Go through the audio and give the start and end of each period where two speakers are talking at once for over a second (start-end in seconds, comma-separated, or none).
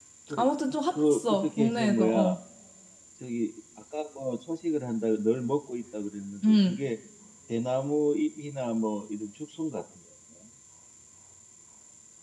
1.0-2.4